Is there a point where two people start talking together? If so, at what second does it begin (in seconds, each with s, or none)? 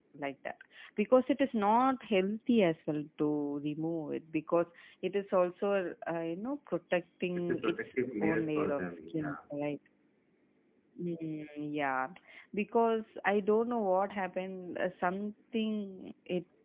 7.4 s